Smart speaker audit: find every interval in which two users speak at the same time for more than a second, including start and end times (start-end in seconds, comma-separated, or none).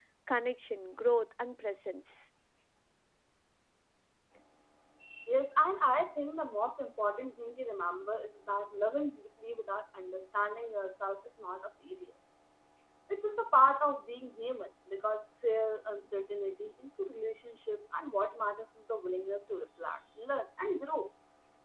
none